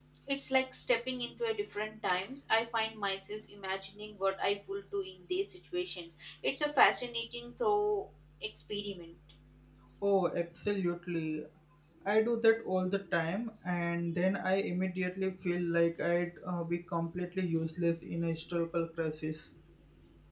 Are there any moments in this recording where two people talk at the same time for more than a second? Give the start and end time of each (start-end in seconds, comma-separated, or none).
none